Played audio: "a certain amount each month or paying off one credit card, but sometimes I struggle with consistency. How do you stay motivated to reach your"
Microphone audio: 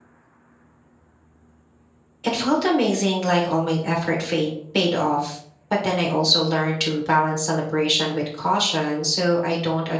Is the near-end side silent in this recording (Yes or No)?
No